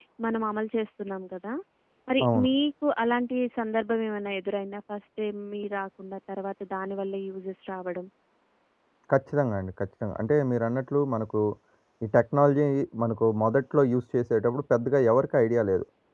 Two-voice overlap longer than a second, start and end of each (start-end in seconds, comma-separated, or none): none